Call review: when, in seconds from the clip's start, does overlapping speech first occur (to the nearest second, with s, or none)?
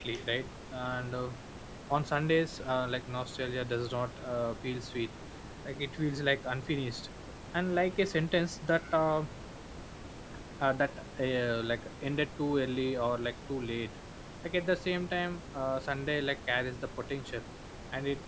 none